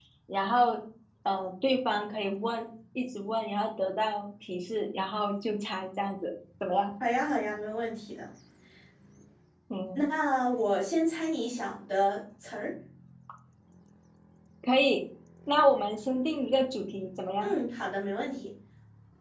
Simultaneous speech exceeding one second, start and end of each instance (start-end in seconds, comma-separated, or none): none